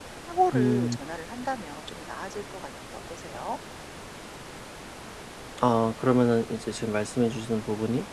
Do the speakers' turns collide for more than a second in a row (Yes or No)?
No